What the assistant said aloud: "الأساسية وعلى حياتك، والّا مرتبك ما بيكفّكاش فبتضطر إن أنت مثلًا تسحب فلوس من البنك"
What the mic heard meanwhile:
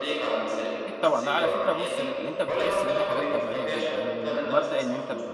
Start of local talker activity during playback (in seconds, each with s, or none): 0.8 s